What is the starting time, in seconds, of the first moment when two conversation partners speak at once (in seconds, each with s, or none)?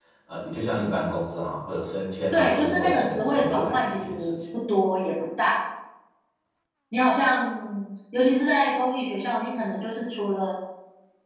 2.3 s